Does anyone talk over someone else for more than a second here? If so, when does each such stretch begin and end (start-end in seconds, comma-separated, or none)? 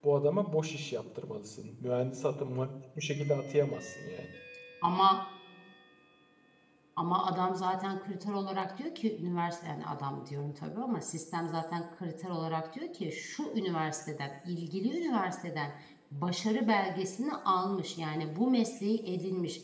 none